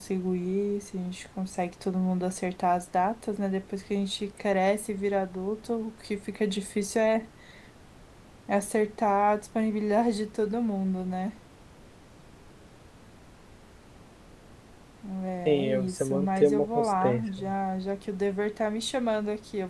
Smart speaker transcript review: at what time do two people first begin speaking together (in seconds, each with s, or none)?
15.4 s